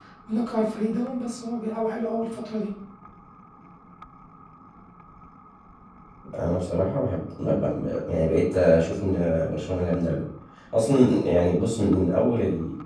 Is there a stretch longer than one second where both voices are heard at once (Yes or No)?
No